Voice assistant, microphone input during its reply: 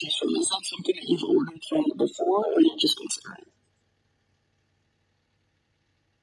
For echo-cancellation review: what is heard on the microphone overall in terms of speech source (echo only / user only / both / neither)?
echo only